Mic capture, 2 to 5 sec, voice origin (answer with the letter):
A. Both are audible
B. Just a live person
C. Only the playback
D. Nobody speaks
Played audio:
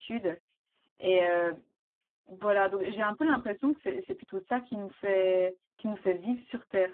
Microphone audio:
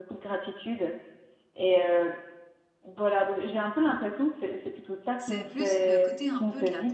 C